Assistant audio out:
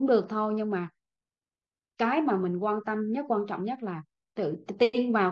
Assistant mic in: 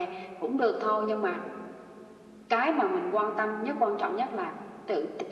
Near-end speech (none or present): none